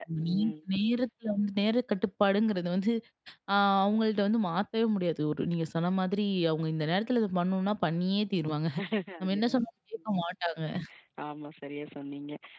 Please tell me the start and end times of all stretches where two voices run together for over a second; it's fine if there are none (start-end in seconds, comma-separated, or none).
none